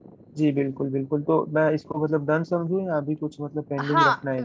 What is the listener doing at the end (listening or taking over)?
taking over